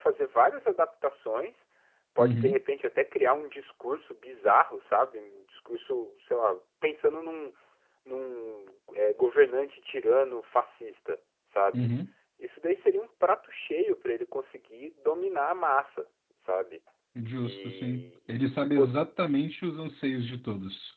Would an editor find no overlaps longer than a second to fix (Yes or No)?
No